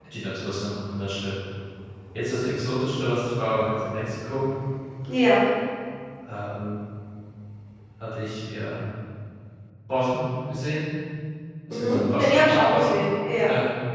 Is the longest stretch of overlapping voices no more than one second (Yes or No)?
No